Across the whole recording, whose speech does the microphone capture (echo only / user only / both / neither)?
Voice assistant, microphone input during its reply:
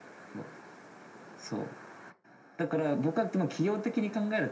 echo only